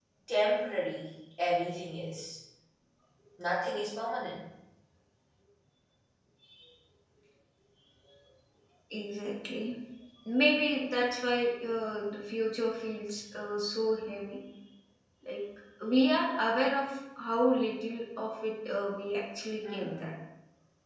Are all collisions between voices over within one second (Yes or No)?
Yes